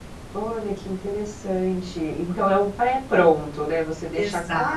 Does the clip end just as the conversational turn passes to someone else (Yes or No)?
No